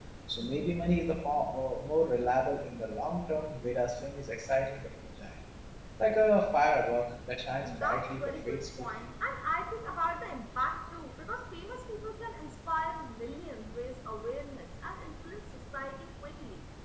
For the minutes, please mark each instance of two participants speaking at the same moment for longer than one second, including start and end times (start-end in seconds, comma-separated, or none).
7.6-8.9